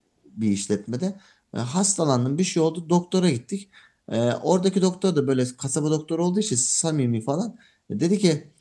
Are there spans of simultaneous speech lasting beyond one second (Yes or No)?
No